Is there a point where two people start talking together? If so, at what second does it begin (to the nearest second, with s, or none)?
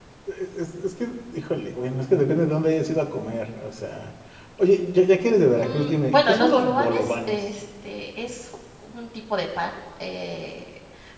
6 s